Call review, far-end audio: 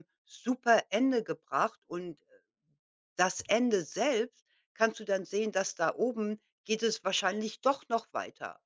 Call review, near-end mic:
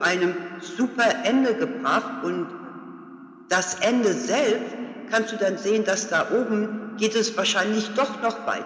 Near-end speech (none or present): none